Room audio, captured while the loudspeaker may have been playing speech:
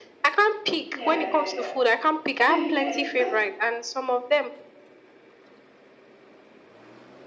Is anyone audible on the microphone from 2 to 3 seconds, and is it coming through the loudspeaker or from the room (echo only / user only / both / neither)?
both